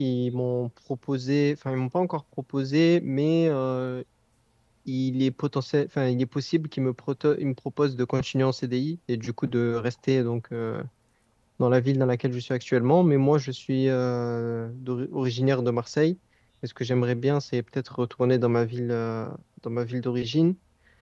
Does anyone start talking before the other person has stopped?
No

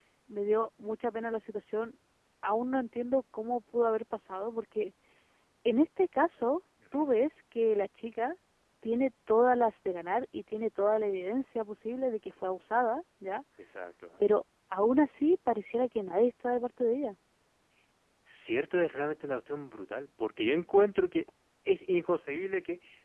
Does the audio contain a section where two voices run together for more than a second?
No

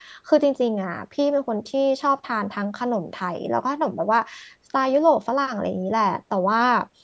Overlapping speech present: No

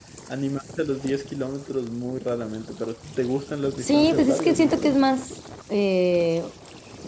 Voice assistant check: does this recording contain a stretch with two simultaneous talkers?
Yes, from 3.8 s

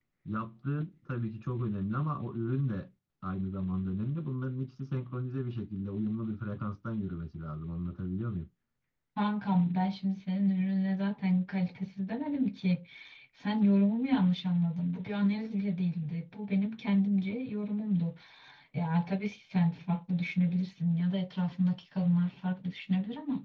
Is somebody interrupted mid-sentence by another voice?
No

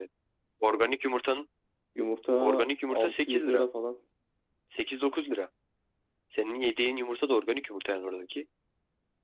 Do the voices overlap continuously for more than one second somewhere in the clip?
Yes, from 2.4 s

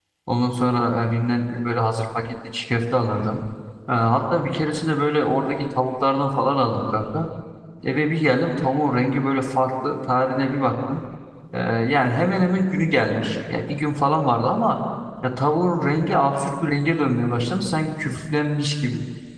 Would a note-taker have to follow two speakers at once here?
No

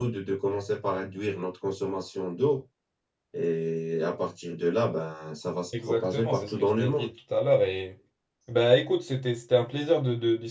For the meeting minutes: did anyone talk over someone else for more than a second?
Yes, from 5.7 s

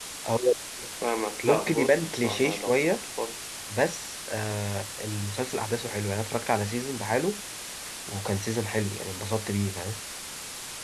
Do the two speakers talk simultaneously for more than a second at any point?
Yes, from 1.4 s

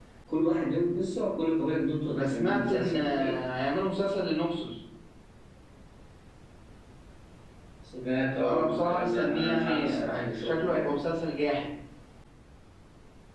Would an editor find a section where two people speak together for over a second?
Yes, from 2.1 s

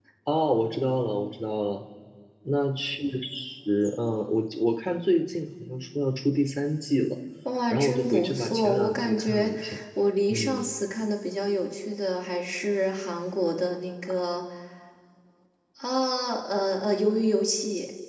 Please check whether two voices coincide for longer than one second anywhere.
Yes, from 7.7 s

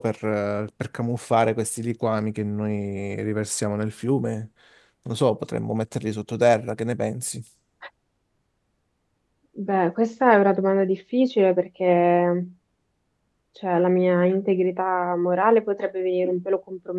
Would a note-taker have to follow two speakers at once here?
No

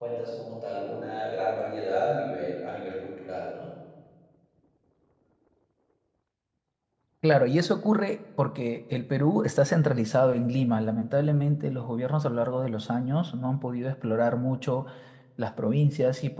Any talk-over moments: No

